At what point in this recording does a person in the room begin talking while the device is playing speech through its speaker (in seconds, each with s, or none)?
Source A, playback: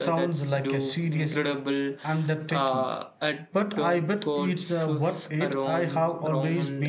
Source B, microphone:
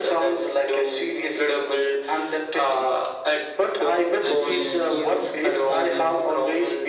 4.2 s